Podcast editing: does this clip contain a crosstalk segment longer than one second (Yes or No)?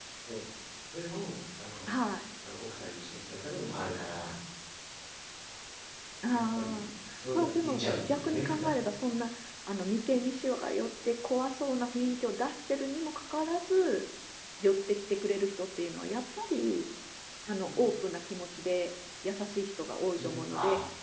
Yes